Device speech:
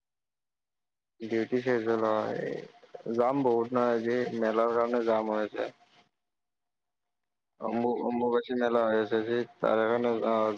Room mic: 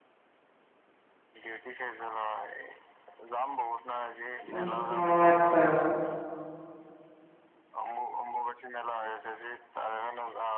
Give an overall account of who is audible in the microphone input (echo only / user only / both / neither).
both